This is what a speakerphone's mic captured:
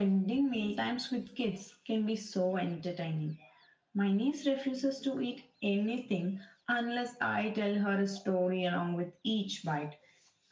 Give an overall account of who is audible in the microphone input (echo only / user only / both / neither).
echo only